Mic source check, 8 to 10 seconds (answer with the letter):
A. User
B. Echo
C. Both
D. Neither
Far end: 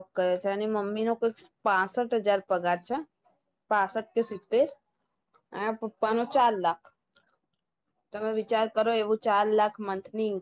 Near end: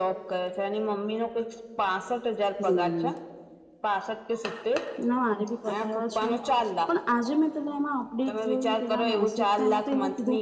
C